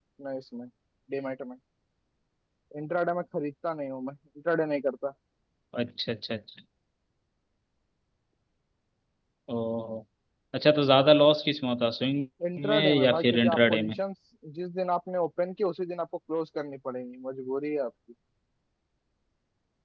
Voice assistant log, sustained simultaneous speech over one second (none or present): present